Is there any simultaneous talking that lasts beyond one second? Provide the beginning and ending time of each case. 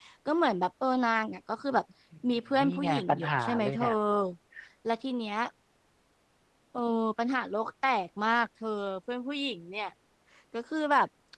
2.3-3.8

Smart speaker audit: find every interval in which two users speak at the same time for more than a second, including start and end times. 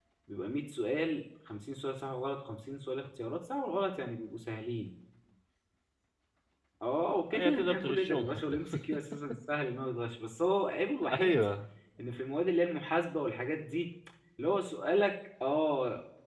7.3-8.6

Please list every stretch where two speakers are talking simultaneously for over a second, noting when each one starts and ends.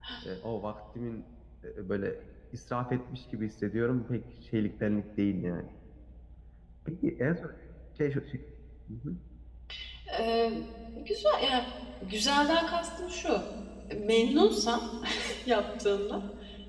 none

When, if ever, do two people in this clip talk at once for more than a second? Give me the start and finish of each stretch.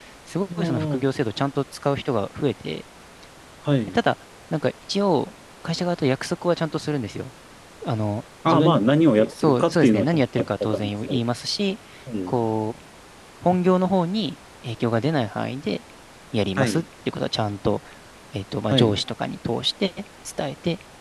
9.3-11.2

